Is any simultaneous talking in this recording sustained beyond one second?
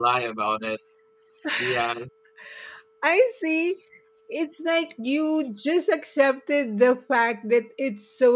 No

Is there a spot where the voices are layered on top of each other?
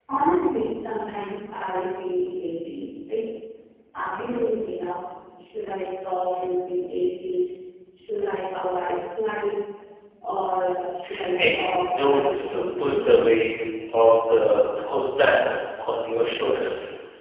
Yes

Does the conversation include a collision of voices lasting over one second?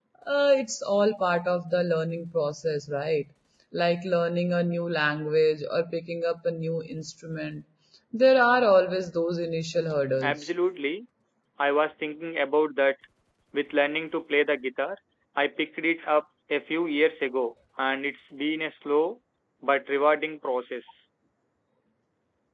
No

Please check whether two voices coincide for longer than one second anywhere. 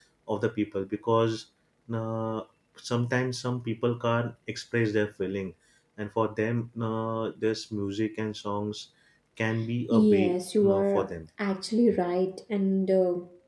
Yes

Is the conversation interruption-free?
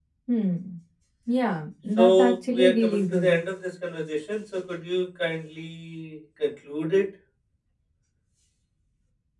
No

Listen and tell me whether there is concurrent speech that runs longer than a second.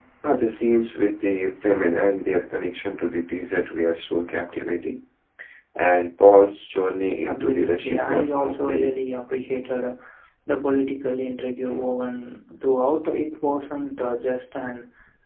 Yes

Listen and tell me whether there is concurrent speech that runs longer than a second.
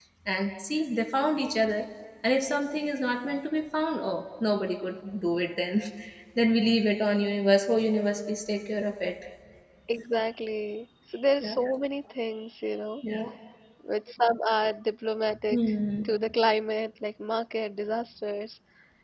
No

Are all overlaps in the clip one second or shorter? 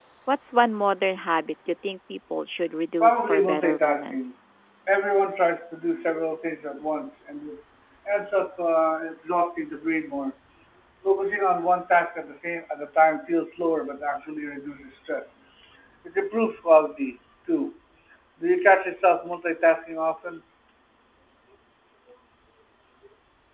No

